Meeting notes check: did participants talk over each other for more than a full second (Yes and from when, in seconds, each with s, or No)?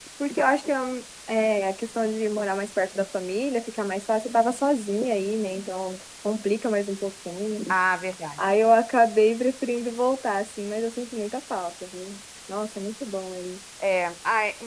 No